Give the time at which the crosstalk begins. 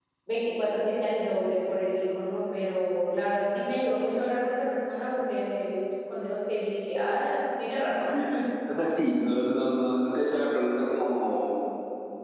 none

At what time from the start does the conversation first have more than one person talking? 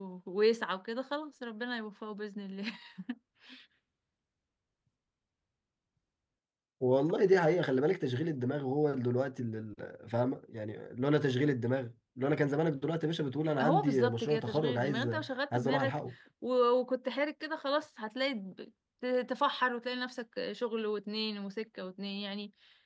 14 s

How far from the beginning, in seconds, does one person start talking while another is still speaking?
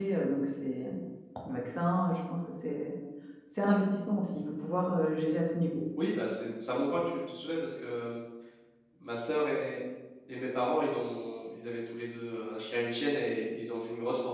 none

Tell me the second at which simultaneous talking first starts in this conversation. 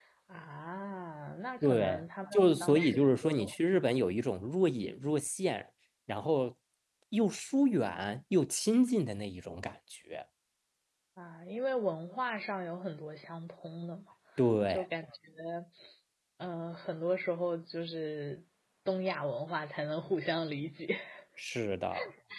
2 s

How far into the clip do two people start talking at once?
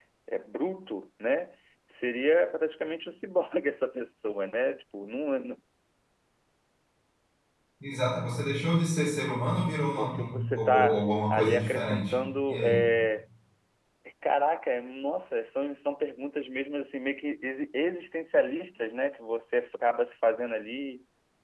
10 s

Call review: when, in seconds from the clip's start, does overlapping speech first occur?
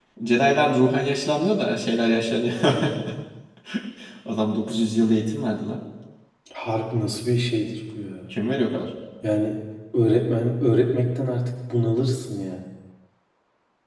none

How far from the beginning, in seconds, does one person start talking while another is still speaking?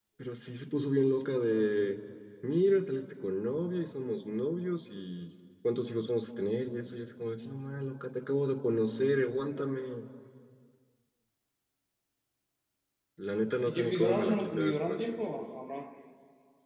14 s

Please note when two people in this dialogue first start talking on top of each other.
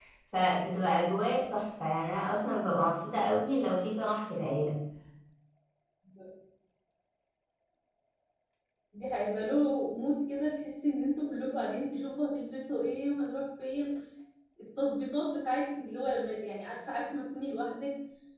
none

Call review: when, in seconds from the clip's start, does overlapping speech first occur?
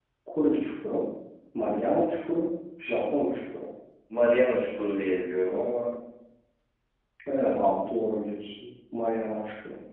none

